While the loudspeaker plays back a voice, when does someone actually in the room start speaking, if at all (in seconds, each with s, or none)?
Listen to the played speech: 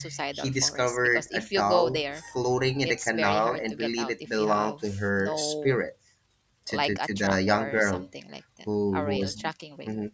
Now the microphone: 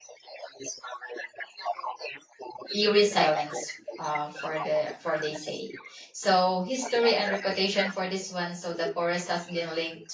2.7 s